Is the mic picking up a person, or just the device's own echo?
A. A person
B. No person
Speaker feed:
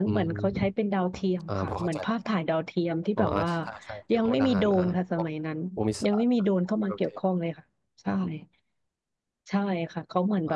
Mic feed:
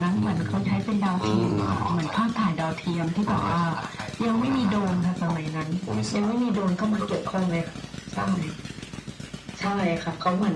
A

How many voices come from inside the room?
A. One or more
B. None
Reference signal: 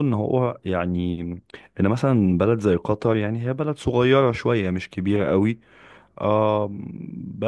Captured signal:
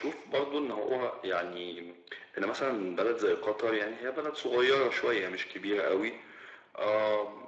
B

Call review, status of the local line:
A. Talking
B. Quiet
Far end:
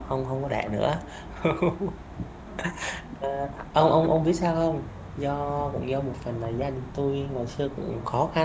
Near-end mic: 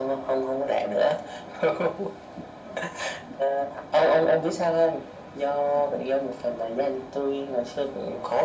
B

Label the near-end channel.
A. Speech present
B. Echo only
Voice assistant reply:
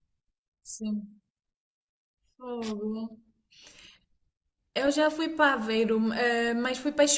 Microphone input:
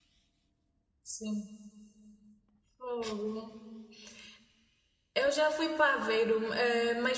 B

